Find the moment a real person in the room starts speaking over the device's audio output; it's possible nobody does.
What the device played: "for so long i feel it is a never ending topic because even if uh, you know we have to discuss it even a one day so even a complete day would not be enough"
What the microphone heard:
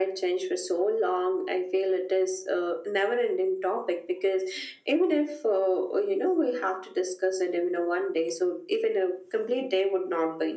none

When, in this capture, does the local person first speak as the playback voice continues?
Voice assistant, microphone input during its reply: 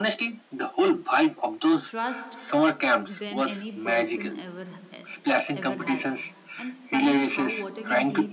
2 s

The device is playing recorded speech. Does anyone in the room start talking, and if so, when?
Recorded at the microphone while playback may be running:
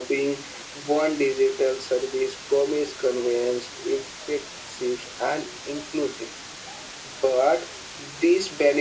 none

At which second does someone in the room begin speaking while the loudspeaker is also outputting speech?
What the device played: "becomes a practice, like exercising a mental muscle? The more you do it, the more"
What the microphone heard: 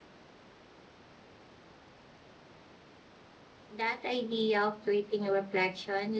4 s

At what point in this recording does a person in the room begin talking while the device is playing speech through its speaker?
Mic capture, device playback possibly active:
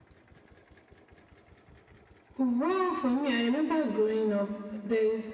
none

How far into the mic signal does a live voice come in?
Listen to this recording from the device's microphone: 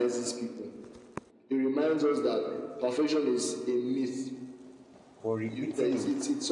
5 s

